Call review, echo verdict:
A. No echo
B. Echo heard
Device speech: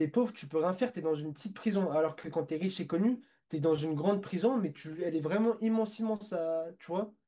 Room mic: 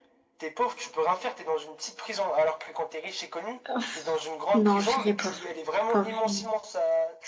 B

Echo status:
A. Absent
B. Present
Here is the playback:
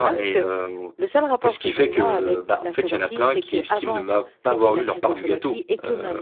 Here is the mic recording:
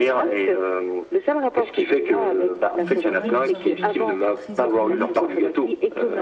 B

